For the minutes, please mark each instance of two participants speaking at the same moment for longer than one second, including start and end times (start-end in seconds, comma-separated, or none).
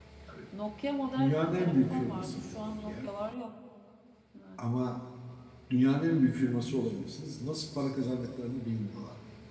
1.2-3.1